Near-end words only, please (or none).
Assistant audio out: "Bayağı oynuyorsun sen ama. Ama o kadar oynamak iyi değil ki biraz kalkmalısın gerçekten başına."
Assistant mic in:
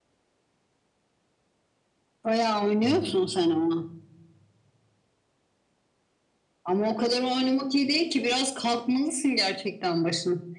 hı hı